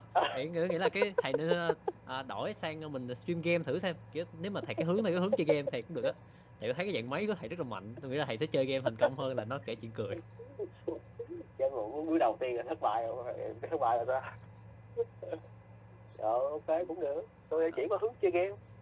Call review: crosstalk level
none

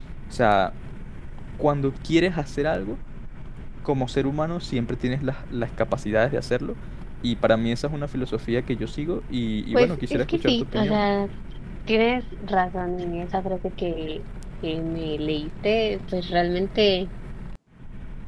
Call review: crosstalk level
present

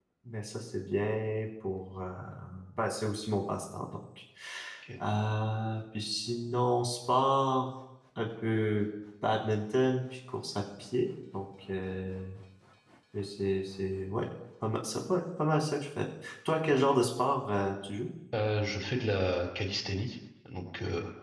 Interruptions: none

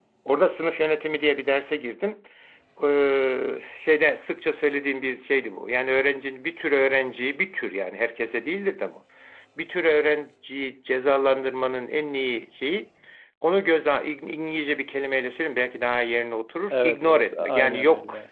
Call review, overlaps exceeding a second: present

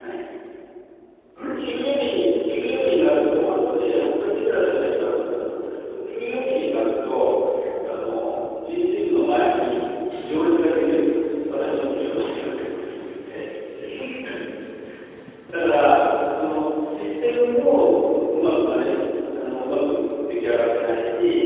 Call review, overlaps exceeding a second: none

